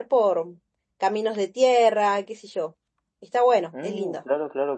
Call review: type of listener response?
taking over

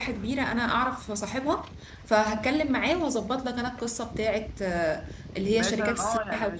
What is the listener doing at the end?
taking over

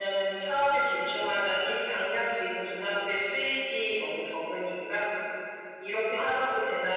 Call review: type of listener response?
listening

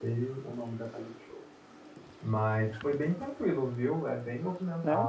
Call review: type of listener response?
listening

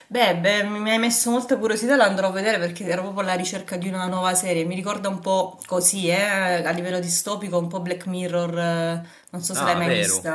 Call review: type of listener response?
taking over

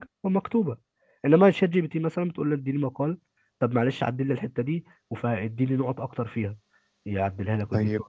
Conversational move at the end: taking over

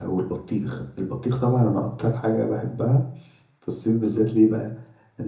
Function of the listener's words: listening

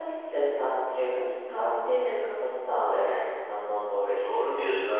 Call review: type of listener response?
taking over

